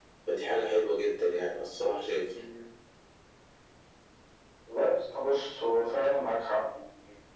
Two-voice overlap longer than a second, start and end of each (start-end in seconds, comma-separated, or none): none